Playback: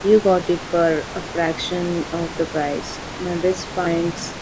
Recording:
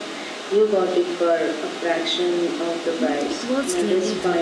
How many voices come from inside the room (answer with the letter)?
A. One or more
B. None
A